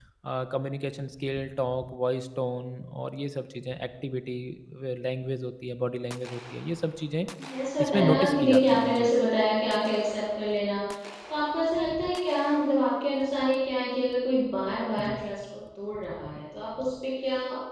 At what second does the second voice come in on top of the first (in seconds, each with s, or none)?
7.8 s